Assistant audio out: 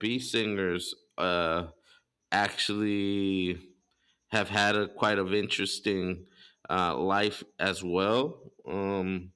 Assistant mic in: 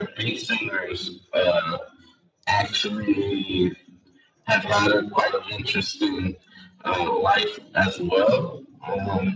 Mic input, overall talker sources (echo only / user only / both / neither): echo only